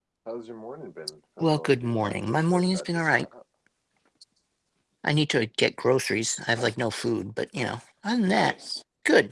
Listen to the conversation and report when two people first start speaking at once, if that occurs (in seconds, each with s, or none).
1.4 s